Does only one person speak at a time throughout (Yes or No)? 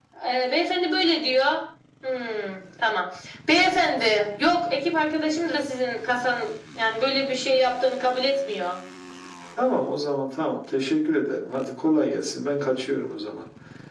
Yes